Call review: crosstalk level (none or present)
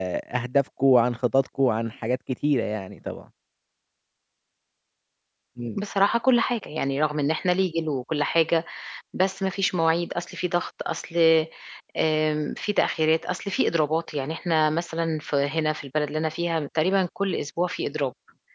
none